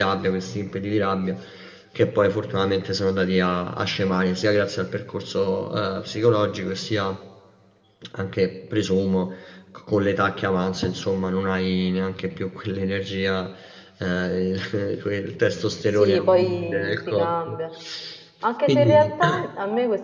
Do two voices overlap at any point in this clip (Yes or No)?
Yes